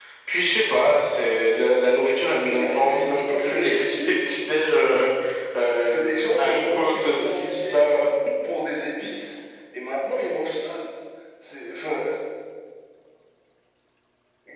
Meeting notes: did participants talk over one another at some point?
Yes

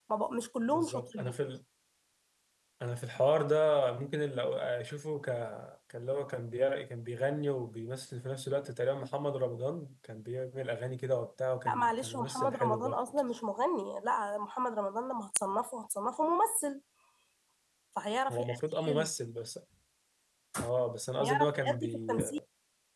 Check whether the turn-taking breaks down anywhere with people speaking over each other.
Yes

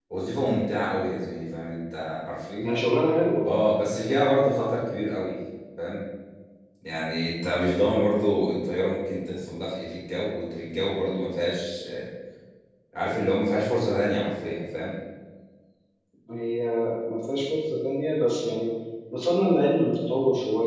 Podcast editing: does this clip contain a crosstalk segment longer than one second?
No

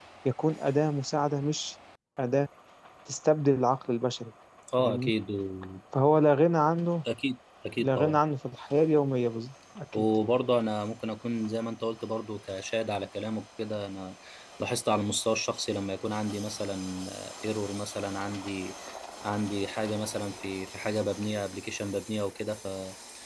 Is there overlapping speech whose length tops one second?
No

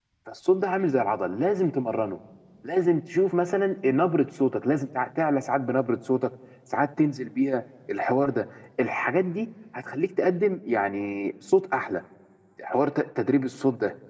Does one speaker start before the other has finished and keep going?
No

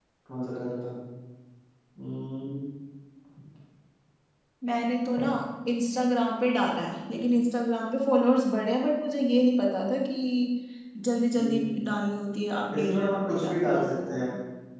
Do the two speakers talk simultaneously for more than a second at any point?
Yes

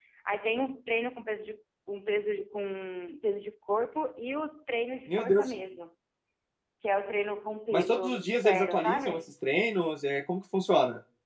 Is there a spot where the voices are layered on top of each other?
Yes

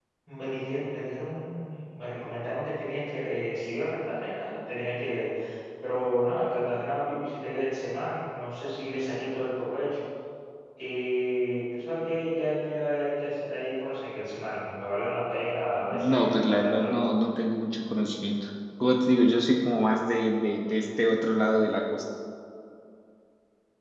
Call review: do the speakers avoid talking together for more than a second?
No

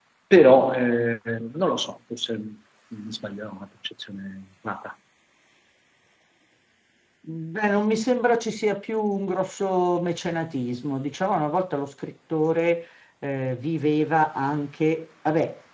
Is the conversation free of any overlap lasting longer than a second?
Yes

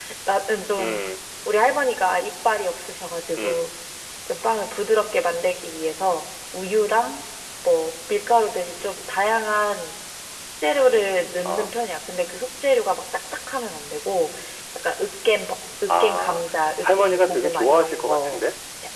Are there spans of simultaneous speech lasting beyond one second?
Yes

